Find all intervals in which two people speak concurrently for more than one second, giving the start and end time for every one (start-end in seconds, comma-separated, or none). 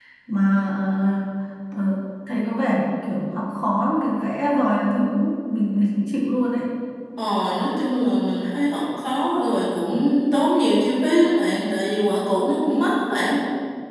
none